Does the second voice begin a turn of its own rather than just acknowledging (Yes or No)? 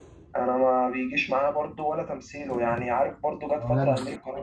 No